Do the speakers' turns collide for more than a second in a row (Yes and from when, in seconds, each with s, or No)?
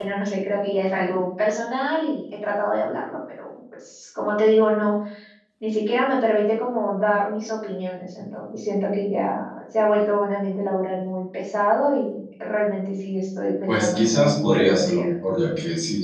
Yes, from 13.7 s